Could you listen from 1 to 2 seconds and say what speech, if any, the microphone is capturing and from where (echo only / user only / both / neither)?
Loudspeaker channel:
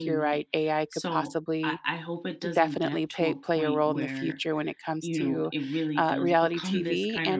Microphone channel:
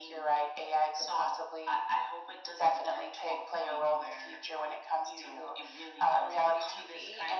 echo only